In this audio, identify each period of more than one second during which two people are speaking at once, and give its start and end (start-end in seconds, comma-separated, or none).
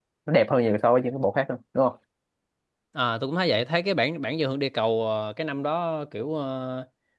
none